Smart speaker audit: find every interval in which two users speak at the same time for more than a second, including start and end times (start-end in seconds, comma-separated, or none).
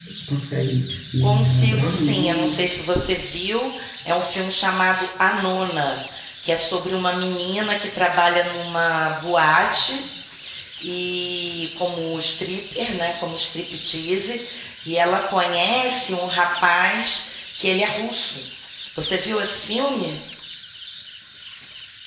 1.2-2.5